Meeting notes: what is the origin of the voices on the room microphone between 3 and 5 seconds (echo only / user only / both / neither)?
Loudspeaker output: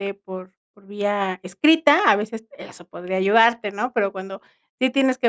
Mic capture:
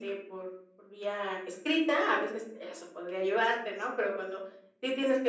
echo only